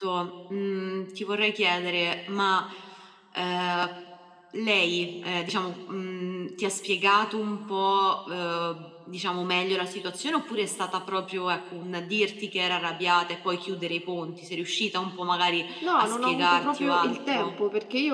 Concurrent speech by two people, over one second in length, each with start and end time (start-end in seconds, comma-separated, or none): 15.8-17.5